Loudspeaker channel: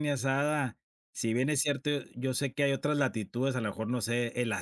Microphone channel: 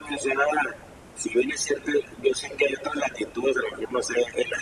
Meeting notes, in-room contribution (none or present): none